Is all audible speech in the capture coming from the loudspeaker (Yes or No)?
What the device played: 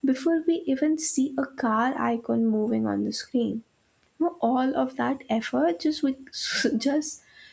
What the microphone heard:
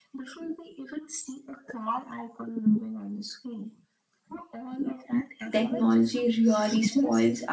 No